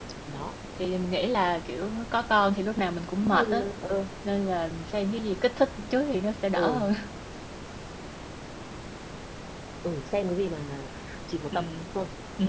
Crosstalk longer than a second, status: none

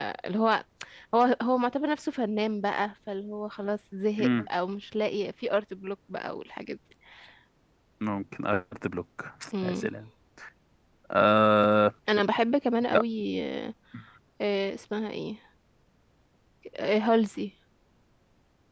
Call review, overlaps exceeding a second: none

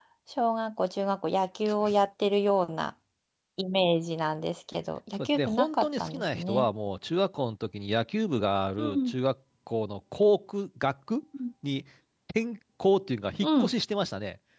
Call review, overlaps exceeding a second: present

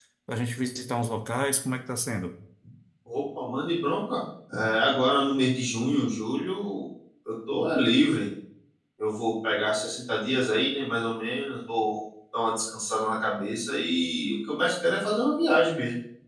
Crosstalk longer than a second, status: none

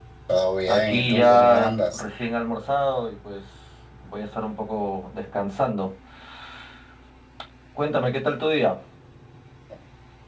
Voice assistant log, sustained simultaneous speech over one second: present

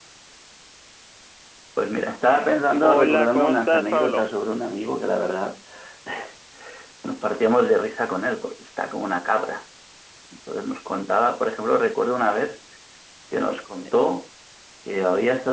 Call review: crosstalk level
present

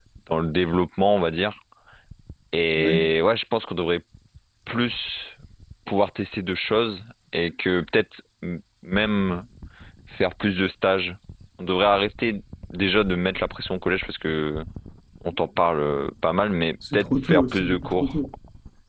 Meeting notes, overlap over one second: present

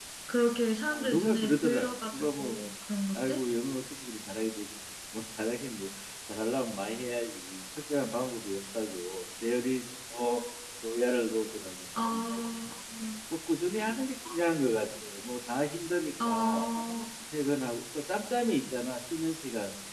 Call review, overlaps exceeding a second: present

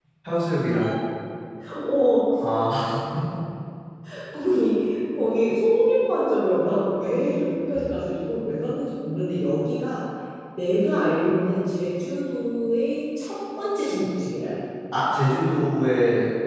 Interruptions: none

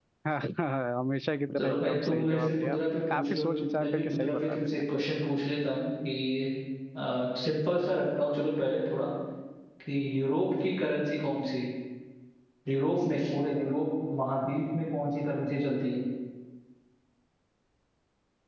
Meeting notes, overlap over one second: present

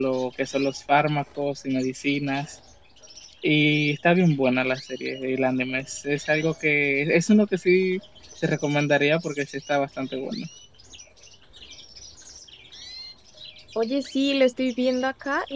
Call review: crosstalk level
none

